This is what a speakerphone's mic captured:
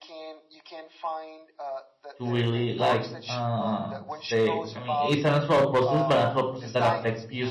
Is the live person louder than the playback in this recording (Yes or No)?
Yes